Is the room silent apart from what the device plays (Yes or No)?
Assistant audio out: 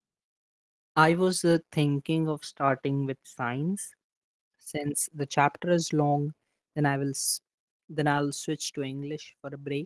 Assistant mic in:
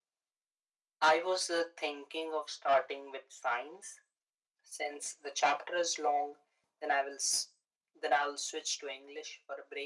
Yes